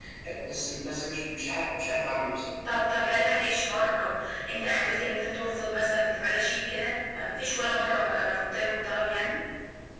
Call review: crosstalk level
none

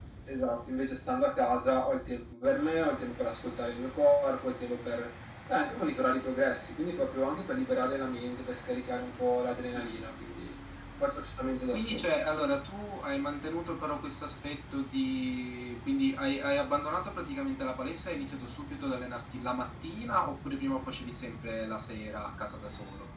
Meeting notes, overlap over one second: none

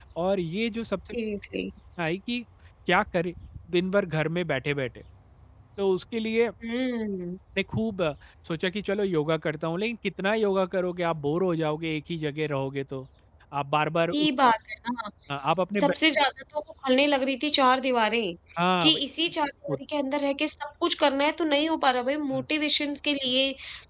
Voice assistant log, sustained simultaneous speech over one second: none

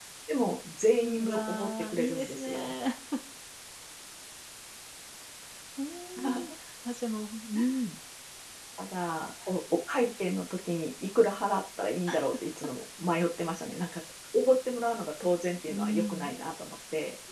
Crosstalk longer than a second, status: present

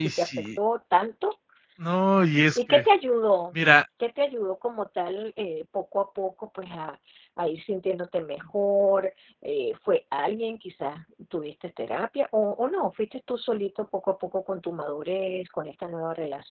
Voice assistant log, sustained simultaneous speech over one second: none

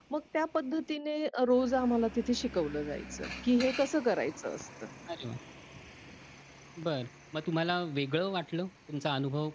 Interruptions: none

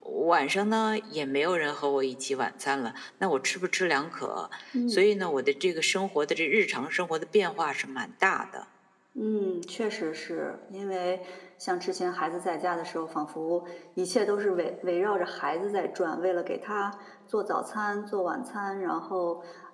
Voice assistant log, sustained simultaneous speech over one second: none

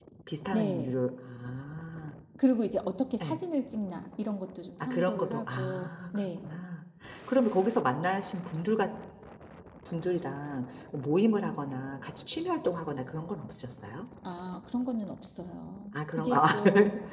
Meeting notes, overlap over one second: present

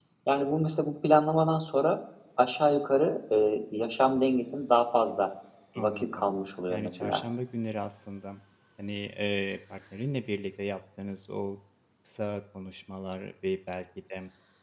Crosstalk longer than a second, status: none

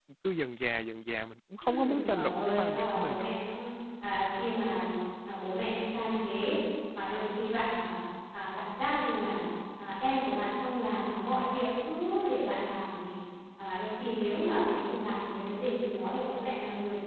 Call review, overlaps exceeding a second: present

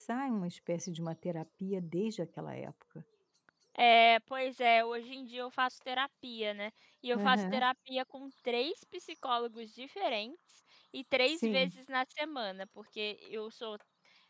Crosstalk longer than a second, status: none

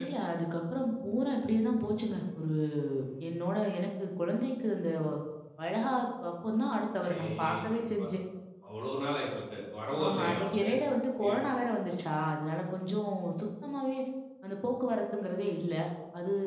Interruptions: present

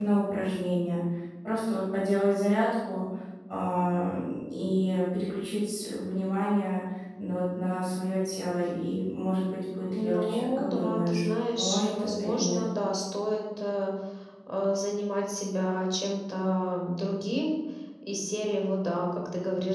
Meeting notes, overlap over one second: present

